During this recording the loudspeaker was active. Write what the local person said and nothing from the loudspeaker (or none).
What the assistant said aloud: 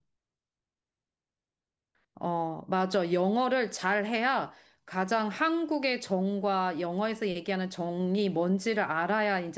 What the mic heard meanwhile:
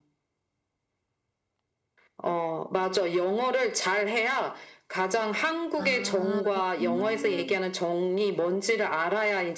아, 그렇구나. 응. 아,